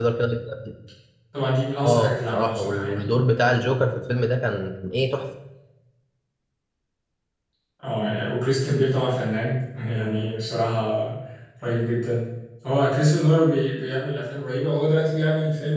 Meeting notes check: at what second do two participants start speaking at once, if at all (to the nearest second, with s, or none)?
2 s